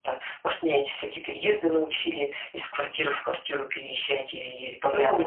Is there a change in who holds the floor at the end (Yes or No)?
Yes